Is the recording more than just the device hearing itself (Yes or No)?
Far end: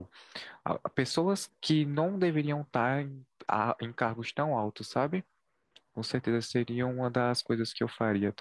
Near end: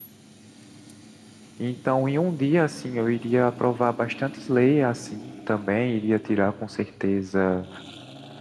Yes